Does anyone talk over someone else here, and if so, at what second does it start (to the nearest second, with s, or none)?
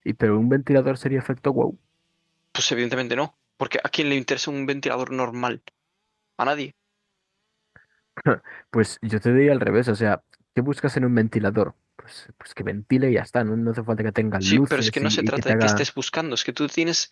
14 s